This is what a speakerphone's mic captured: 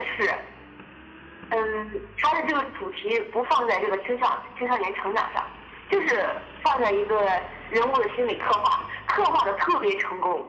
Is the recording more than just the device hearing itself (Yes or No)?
No